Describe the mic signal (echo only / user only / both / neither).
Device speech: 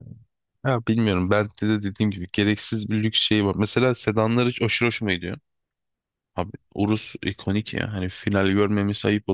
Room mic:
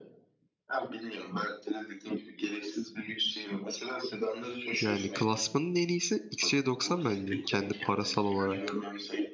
both